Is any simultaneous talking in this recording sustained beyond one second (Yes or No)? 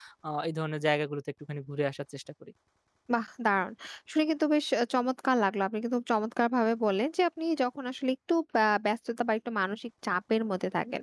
No